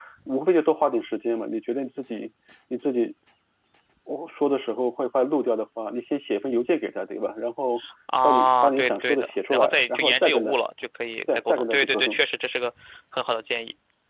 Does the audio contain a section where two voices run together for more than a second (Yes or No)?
Yes